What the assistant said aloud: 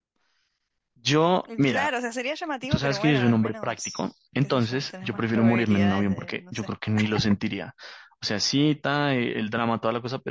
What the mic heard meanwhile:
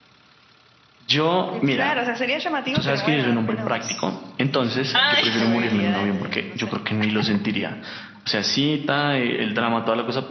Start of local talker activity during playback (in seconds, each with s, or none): 4.9 s